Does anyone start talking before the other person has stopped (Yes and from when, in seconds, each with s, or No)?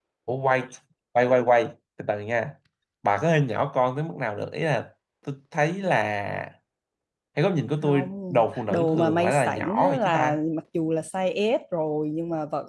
Yes, from 7.8 s